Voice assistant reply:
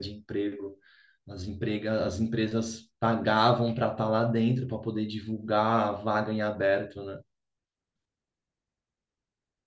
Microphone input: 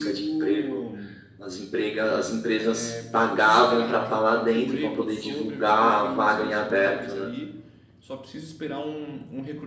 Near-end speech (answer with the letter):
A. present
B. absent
A